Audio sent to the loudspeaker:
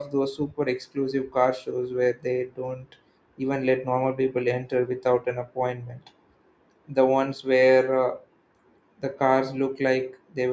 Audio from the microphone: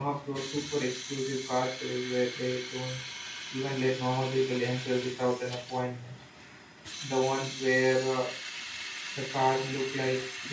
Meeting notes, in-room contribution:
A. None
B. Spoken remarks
A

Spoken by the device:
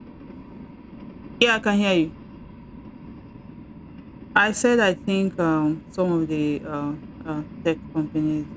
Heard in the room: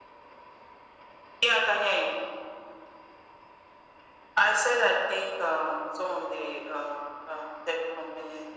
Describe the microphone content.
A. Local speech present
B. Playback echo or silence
B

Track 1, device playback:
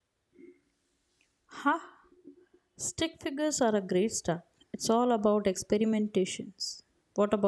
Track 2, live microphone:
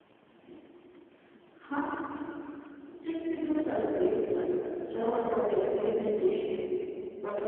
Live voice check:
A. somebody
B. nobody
B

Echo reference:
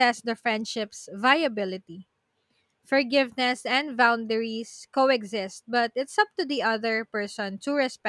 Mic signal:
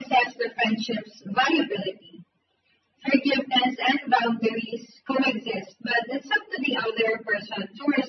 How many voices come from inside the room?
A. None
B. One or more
A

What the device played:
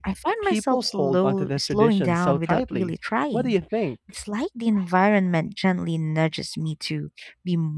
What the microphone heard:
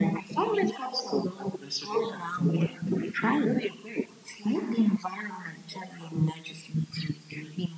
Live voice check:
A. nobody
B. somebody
A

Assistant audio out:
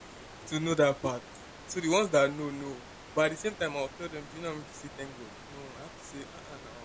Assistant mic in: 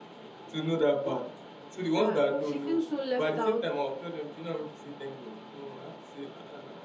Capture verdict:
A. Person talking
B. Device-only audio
A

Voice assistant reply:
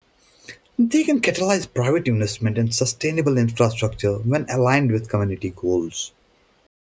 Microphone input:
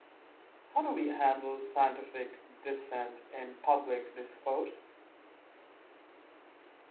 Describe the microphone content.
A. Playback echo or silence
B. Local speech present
B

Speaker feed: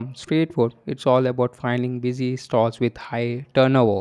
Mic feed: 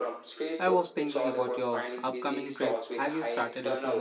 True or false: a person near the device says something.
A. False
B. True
B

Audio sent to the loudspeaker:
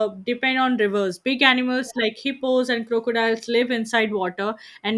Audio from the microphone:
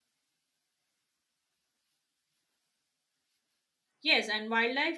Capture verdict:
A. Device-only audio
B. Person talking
B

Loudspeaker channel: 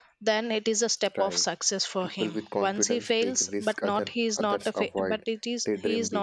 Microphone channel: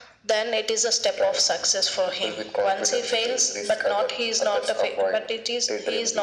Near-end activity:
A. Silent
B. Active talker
A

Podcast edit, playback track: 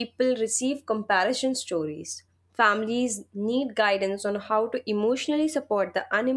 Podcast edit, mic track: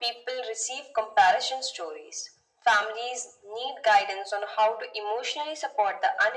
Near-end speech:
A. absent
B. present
A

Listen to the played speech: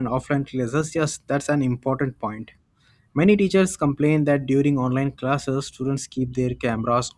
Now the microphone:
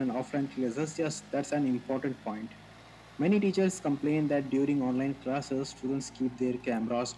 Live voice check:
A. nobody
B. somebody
A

